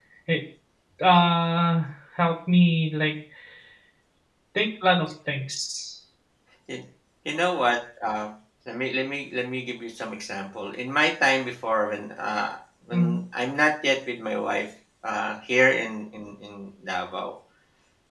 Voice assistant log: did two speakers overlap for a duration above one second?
No

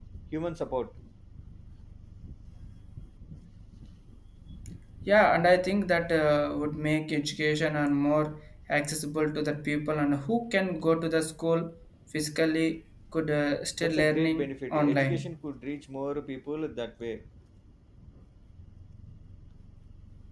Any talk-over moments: Yes, from 13.8 s

